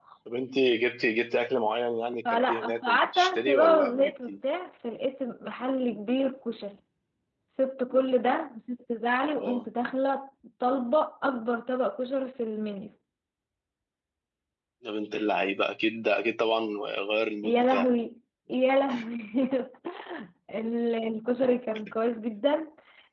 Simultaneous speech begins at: 2.3 s

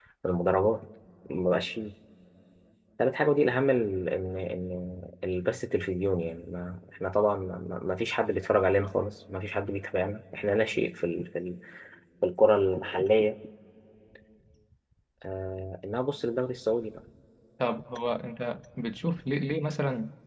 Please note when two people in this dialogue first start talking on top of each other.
none

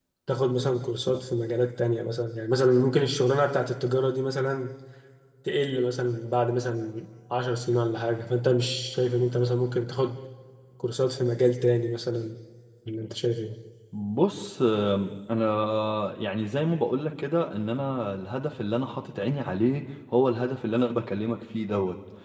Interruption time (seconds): none

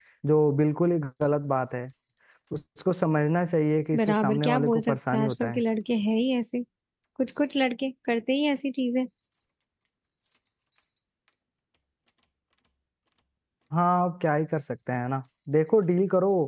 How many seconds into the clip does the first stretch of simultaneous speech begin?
3.9 s

